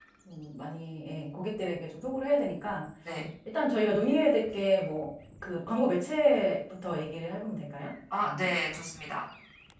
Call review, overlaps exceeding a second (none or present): none